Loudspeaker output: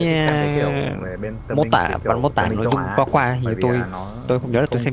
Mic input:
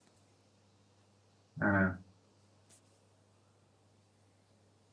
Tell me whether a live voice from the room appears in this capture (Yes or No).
Yes